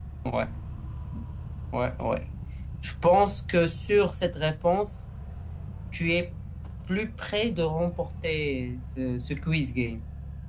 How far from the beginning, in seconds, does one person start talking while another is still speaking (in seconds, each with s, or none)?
none